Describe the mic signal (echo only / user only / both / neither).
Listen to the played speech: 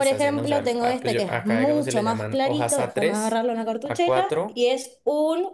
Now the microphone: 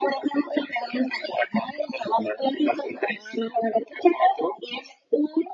echo only